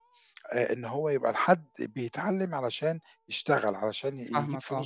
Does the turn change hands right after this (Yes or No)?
No